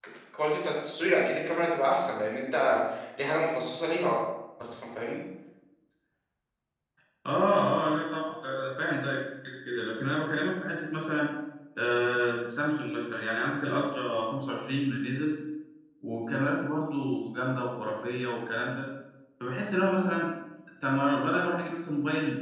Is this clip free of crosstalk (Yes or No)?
Yes